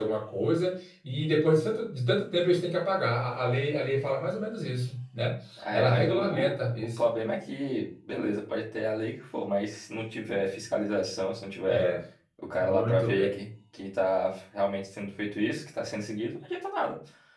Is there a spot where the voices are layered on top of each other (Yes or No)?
Yes